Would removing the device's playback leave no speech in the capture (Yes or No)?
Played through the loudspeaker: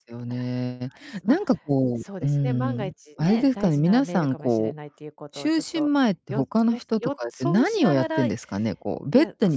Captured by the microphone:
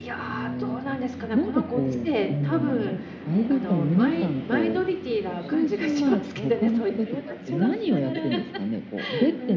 No